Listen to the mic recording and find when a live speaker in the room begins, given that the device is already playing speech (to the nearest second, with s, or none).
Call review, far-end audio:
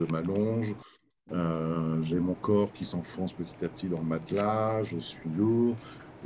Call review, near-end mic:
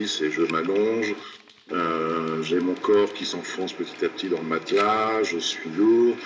none